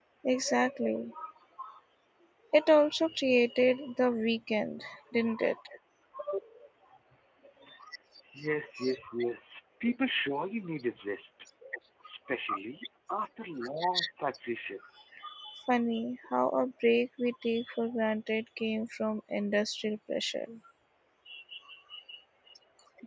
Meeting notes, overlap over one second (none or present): none